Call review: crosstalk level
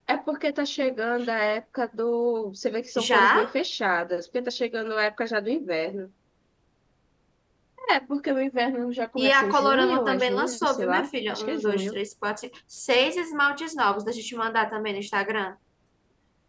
present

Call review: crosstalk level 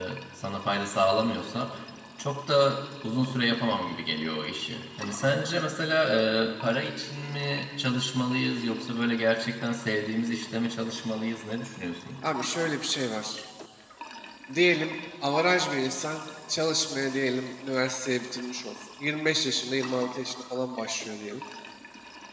none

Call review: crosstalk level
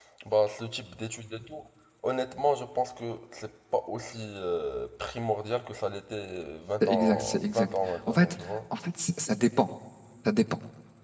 present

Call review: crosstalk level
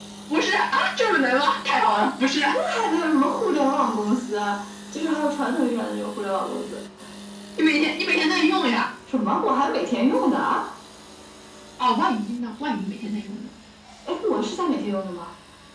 none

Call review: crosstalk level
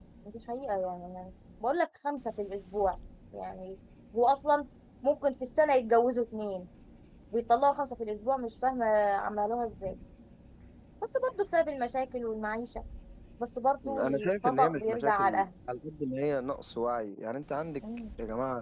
present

